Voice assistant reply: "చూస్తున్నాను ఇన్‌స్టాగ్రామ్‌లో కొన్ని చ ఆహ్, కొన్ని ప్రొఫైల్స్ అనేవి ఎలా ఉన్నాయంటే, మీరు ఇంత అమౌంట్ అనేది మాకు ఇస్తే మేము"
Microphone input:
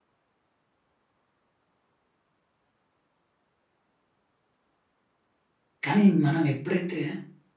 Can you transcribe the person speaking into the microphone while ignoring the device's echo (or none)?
కానీ మనం ఎప్పుడైతే